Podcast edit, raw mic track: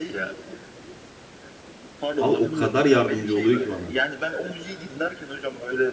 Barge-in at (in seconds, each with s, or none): 2.2 s